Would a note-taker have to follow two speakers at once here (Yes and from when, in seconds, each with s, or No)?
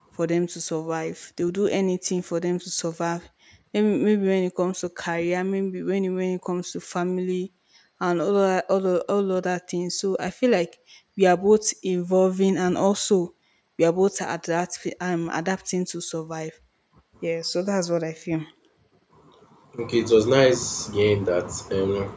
No